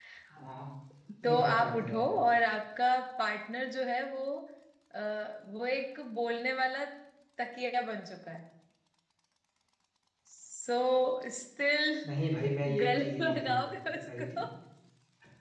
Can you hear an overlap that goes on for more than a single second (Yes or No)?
Yes